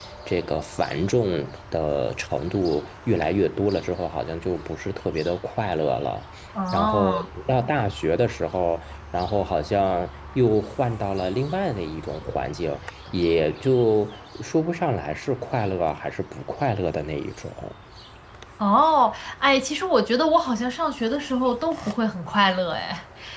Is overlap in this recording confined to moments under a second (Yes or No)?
Yes